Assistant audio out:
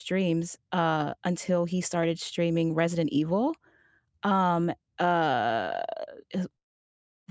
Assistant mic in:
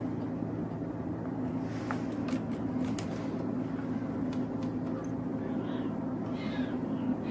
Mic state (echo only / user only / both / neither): neither